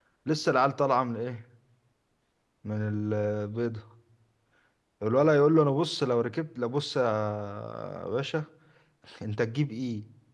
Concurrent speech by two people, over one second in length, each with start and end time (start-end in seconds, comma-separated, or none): none